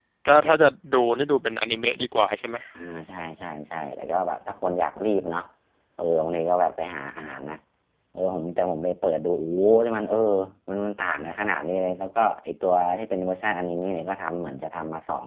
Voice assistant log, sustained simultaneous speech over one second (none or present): none